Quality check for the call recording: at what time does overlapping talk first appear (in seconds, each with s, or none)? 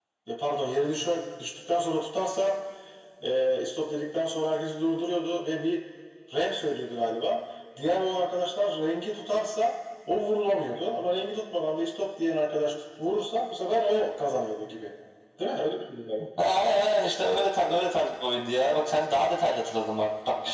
none